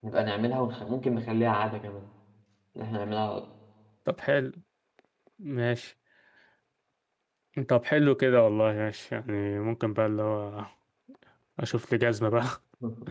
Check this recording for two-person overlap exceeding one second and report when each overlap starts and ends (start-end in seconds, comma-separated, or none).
none